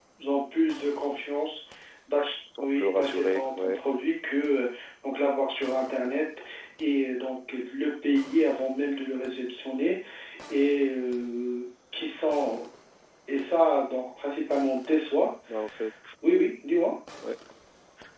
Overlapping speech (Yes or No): Yes